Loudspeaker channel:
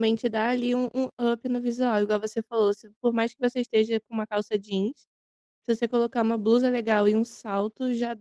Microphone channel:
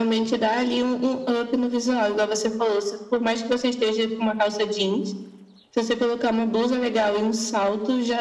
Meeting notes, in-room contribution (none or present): none